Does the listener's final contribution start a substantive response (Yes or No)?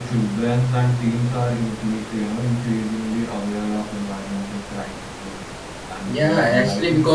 Yes